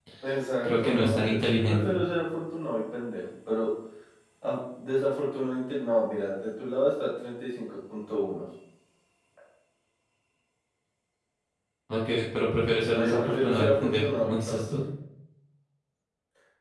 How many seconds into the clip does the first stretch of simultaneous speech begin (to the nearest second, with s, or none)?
1 s